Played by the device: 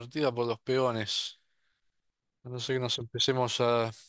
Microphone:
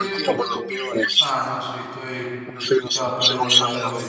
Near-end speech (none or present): present